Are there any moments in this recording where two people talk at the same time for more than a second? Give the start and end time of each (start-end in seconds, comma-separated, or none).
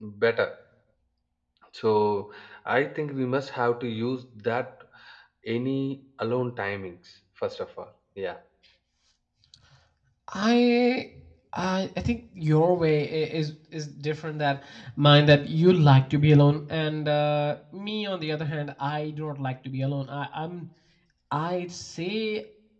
none